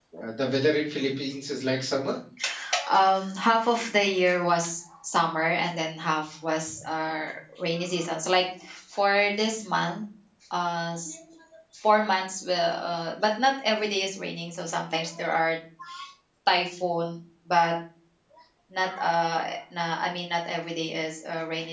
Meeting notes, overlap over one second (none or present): none